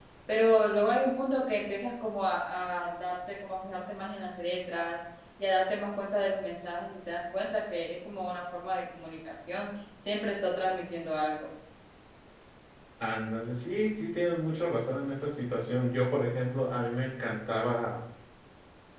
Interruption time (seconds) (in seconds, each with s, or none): none